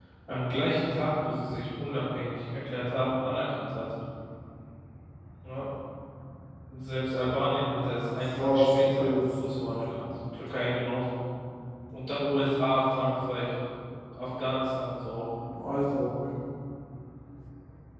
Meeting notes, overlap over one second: present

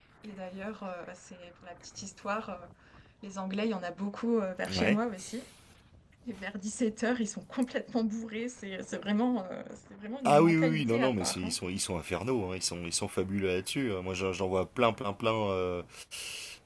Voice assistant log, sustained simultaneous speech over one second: present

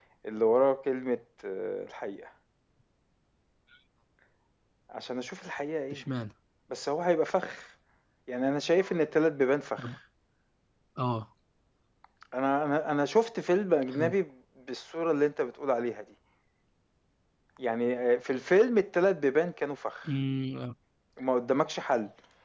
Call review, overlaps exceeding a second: none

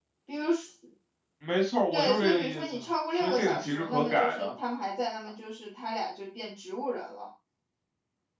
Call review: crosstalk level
present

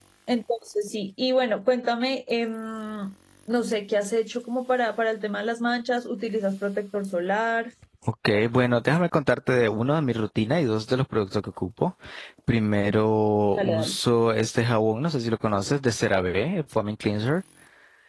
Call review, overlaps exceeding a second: none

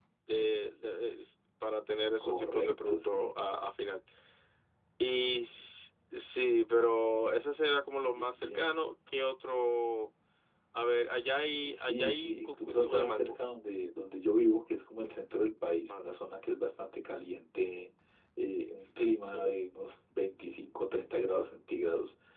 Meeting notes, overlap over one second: present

